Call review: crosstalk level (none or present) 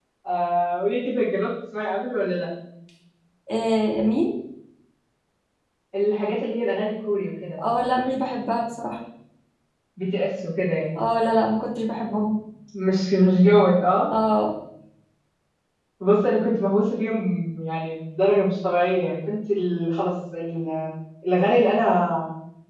none